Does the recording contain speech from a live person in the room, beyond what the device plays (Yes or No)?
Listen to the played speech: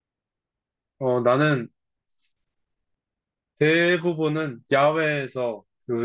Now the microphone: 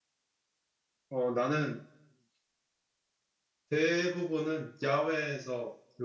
No